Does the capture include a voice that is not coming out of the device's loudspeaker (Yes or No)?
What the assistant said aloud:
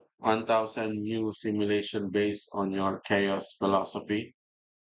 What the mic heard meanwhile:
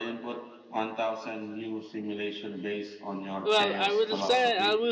Yes